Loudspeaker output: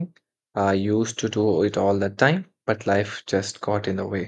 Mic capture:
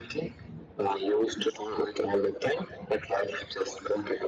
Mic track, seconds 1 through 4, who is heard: echo only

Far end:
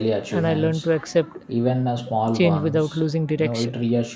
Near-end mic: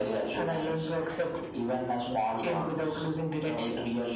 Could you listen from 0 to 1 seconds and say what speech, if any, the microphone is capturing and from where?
echo only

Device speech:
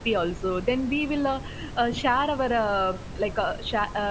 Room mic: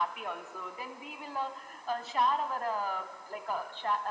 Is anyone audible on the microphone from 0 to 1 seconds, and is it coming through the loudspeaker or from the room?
echo only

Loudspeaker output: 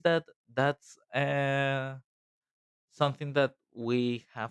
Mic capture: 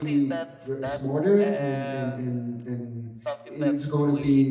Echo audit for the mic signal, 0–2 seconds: both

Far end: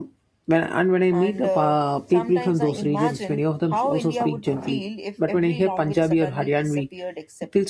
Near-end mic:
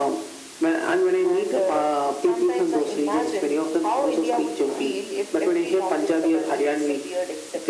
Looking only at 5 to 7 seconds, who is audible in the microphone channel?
echo only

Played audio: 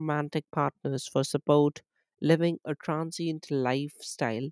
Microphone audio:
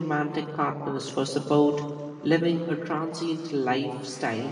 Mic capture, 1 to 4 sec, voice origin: echo only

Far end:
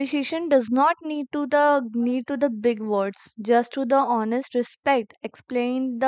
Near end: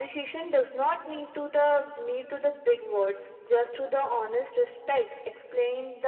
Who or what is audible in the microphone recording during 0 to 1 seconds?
echo only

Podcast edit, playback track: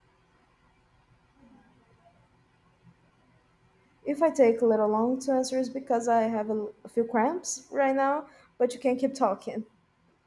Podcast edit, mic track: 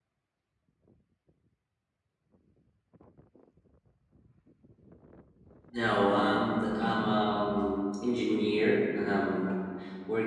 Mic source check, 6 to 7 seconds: user only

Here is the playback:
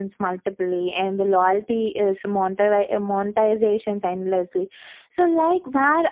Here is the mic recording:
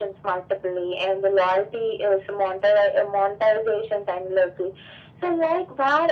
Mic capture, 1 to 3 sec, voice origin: echo only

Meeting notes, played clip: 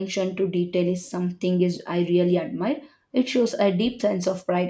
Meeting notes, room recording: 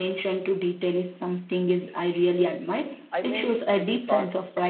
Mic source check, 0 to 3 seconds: echo only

